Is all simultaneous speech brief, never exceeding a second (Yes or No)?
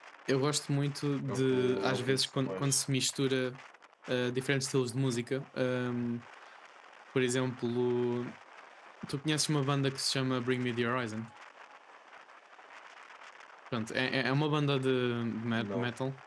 No